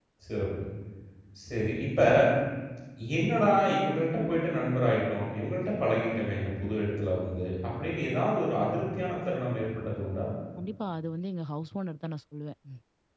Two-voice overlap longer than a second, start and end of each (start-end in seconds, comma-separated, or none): none